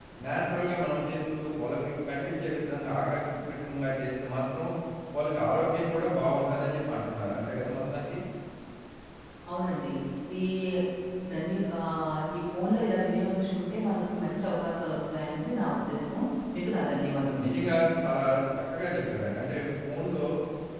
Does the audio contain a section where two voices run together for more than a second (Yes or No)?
No